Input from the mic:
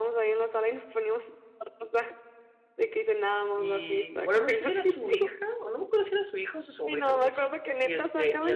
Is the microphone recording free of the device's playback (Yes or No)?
No